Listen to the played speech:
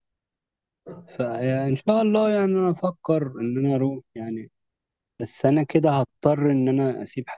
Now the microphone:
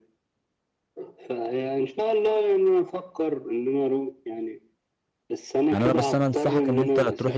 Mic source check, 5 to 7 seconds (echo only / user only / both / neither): both